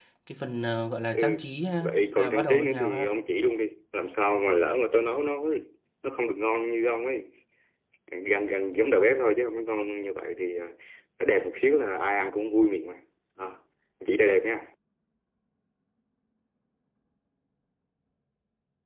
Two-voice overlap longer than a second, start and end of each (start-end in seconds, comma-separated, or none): 1.8-3.0